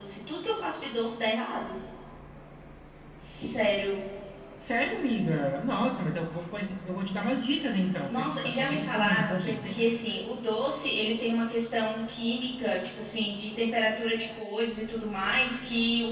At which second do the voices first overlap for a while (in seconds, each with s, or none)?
8.1 s